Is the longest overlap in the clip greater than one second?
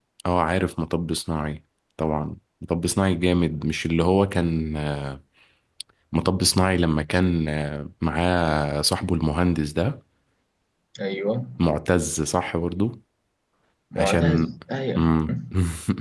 No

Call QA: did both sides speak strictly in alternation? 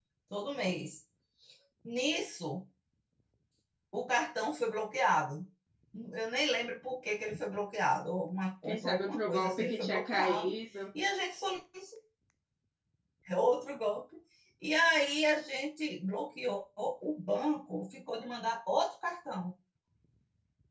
No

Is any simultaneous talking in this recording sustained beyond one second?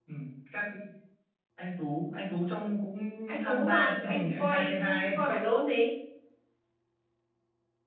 Yes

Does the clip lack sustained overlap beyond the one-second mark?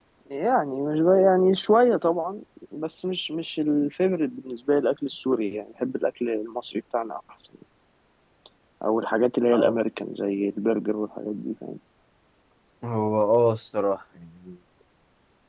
Yes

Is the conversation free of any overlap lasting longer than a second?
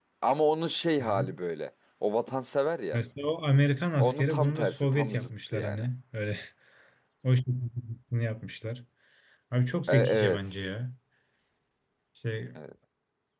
No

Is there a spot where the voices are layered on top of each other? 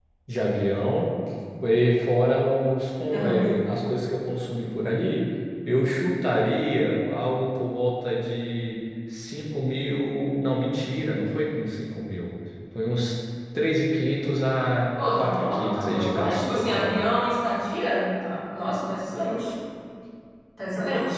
Yes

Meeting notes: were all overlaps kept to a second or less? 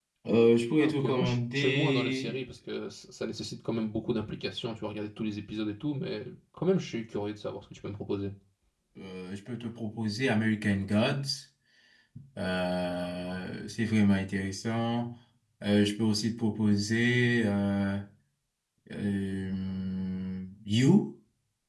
No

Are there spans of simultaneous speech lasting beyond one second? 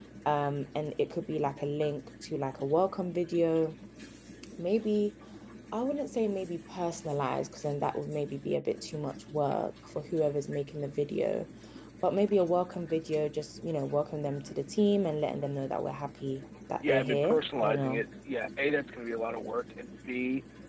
Yes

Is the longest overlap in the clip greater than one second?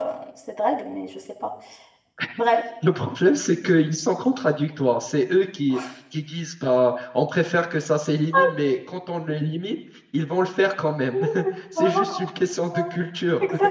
No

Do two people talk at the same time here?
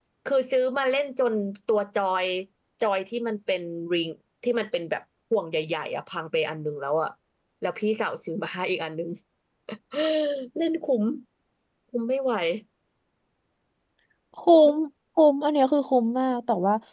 No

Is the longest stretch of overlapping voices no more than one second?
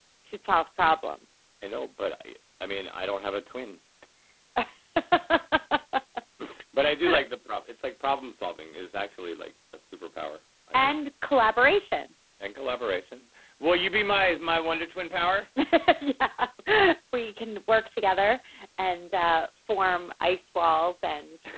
Yes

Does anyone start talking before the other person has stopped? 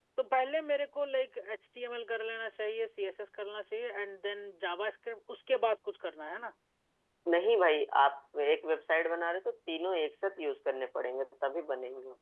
No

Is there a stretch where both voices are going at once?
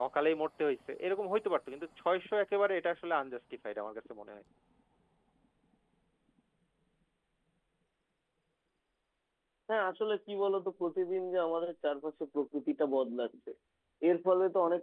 No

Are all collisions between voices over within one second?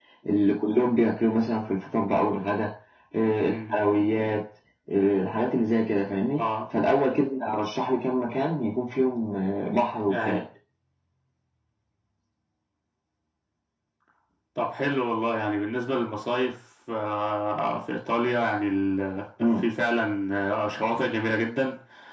Yes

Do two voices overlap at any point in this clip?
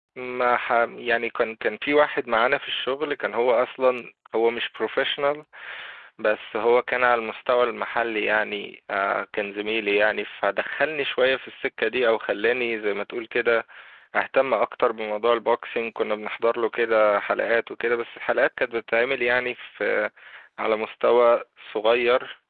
No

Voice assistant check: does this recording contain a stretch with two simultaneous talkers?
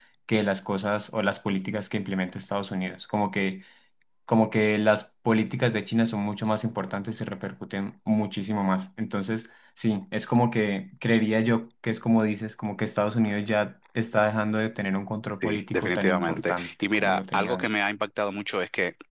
Yes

